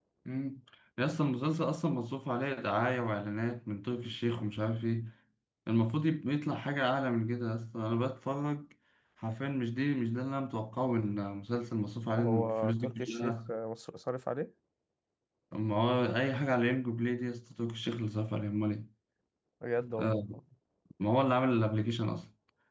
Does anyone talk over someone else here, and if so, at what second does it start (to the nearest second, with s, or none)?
12 s